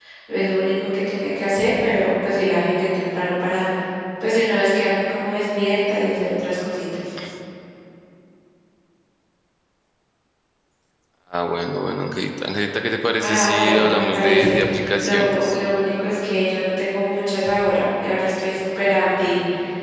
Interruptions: present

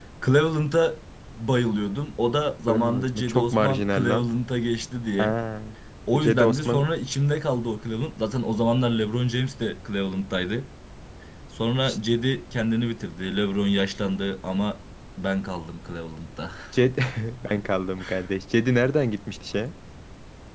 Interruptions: present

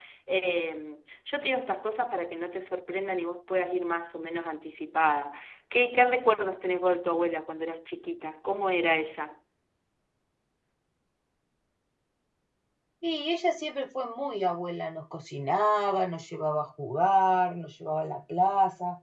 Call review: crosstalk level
none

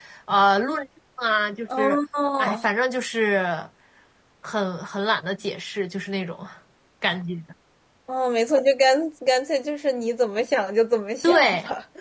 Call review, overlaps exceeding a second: none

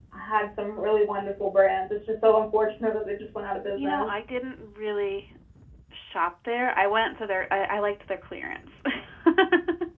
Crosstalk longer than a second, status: none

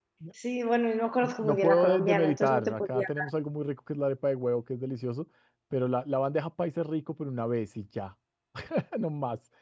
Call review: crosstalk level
present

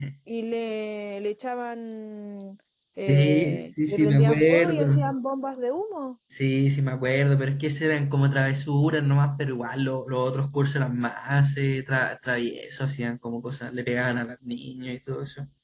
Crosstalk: present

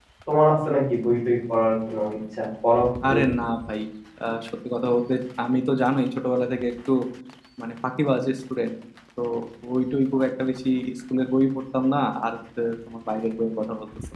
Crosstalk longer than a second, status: none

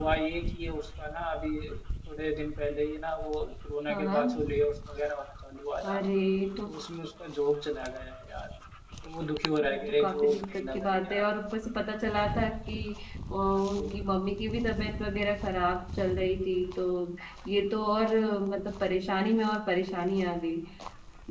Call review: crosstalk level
present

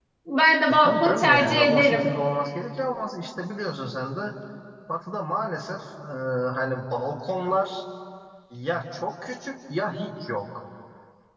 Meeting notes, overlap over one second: present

